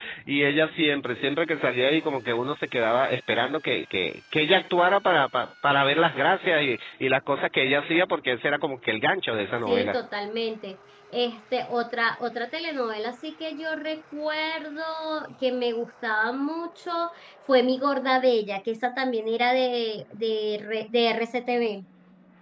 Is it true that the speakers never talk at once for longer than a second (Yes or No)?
Yes